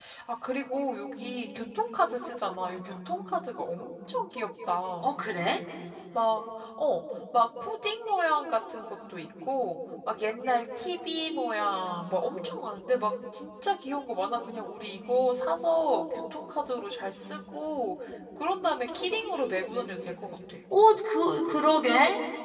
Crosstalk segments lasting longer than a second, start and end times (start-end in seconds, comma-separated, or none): none